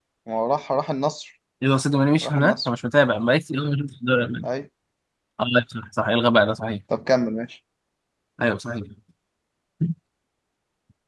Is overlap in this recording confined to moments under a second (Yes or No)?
Yes